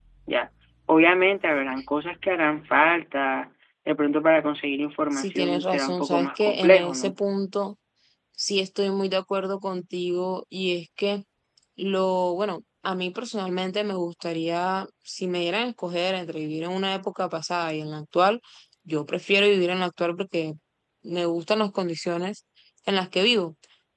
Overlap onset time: 5.1 s

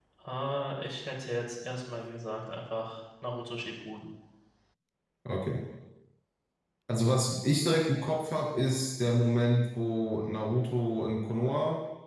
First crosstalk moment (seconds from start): none

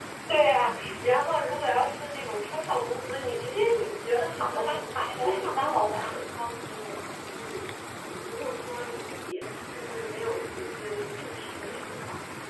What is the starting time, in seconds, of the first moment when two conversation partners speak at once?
4.3 s

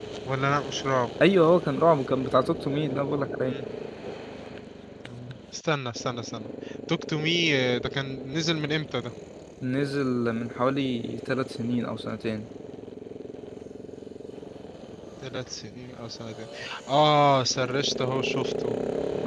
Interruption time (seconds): none

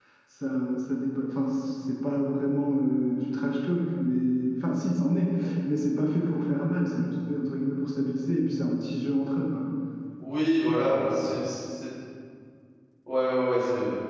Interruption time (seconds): none

